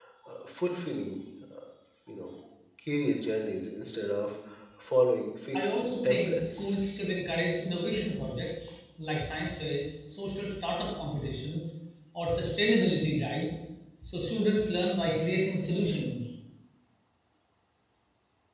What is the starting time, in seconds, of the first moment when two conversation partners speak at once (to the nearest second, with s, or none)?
6 s